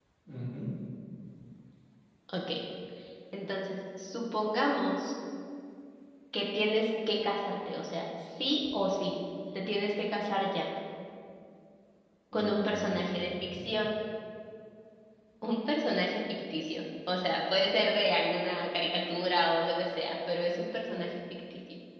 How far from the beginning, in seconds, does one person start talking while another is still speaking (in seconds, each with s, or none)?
12.3 s